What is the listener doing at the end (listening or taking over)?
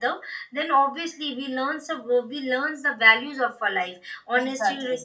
listening